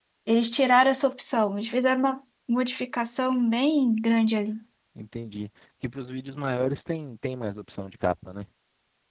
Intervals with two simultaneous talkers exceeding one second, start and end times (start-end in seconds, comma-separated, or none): none